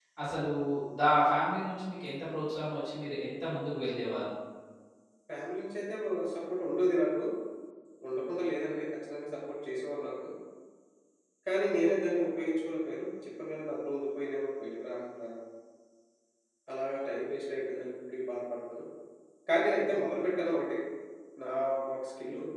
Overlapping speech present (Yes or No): No